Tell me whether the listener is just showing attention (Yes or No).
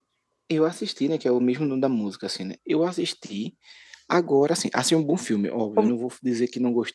Yes